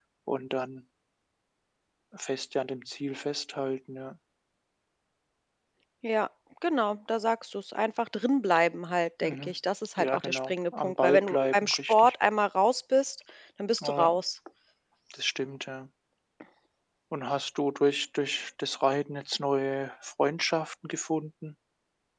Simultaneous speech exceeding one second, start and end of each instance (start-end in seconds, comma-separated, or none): 10.0-12.1